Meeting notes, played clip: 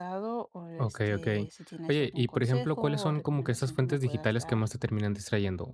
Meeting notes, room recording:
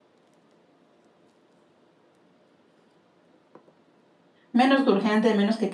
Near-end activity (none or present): present